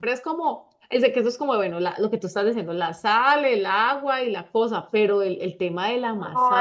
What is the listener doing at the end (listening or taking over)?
taking over